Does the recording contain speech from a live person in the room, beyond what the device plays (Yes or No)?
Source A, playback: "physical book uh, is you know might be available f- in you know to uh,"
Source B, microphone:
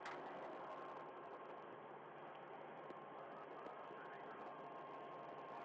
No